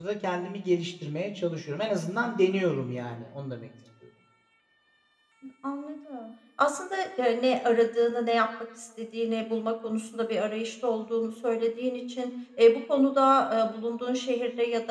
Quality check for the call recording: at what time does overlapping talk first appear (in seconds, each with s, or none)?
none